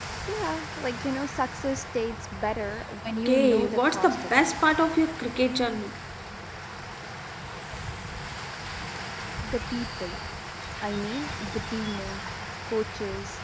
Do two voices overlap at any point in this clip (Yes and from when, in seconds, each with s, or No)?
Yes, from 3.2 s